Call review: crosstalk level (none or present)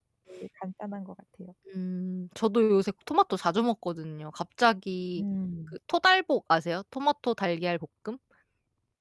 none